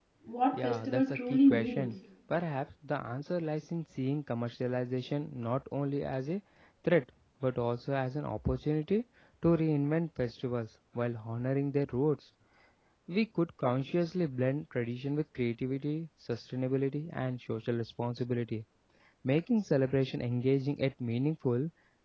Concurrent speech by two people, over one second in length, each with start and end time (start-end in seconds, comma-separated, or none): 0.5-1.9